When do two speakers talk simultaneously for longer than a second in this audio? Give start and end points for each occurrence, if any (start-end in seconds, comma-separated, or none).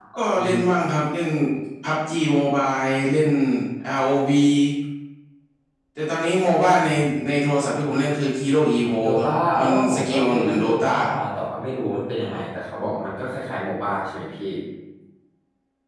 9.0-10.8